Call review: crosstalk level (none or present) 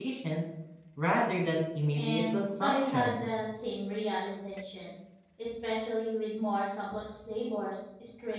present